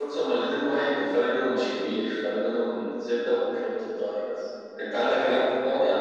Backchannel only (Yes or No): Yes